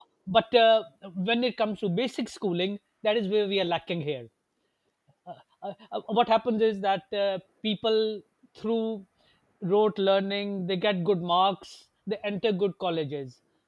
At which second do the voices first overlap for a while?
none

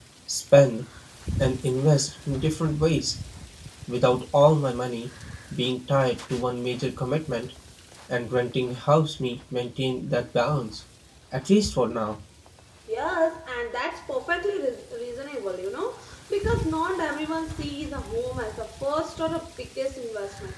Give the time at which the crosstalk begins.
none

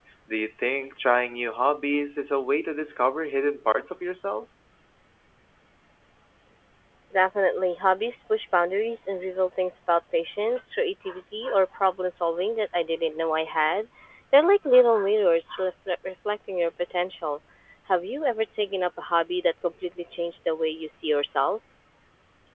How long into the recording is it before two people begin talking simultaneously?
none

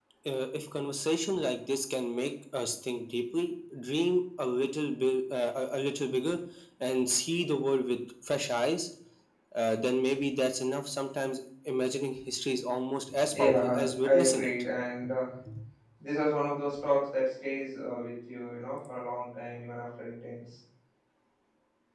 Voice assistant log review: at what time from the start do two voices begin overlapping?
13.3 s

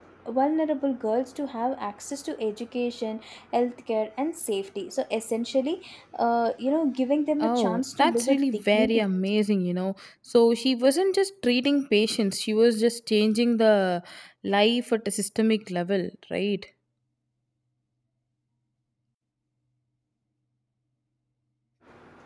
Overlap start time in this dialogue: 7.4 s

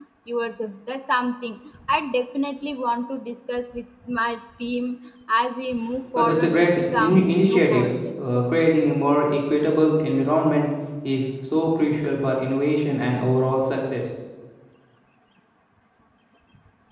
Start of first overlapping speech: 6.2 s

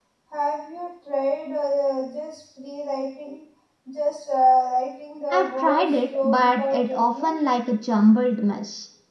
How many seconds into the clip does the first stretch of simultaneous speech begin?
5.3 s

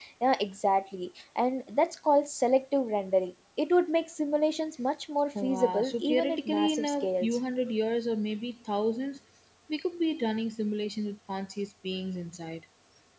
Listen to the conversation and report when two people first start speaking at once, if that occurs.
5.3 s

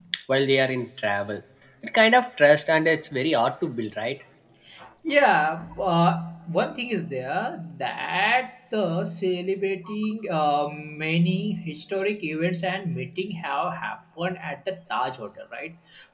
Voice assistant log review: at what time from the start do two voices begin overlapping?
none

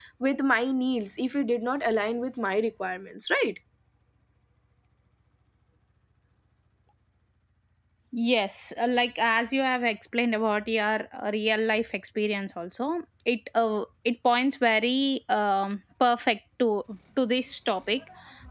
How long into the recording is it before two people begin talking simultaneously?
none

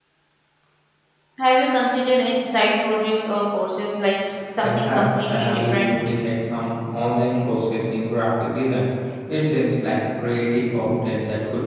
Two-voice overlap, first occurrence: 4.6 s

